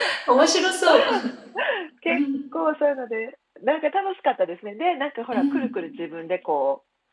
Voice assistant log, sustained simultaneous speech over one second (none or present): none